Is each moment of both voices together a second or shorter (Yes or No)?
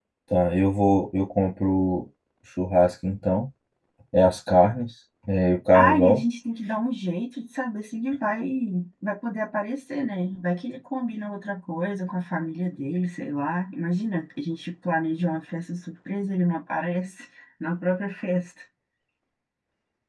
Yes